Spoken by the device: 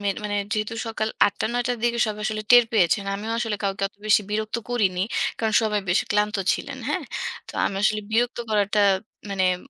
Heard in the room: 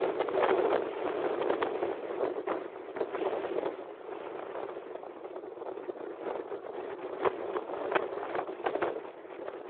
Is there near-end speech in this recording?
No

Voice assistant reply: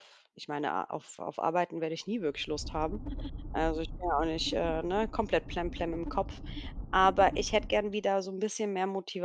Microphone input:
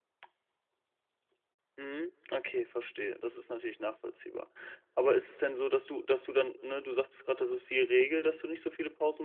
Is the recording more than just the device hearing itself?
Yes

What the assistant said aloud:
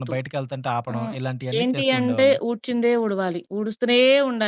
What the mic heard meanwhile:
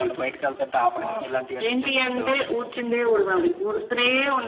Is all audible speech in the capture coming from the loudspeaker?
Yes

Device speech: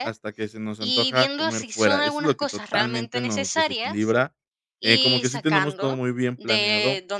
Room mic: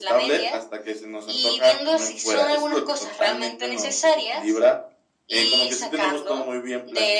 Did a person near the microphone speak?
No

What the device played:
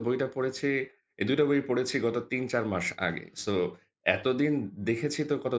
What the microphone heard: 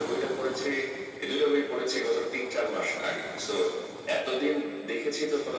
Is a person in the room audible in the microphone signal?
No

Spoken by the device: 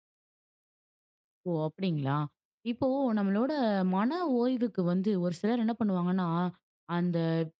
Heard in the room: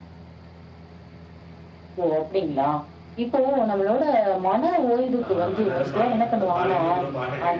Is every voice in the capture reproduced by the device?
No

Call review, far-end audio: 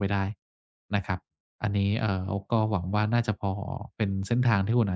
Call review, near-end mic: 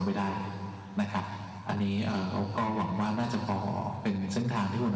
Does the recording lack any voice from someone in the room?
Yes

